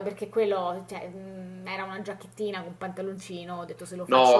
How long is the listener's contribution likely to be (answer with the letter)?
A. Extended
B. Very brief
B